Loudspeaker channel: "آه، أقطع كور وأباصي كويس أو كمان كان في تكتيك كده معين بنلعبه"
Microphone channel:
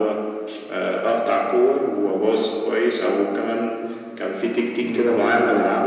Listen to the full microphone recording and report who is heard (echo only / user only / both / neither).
both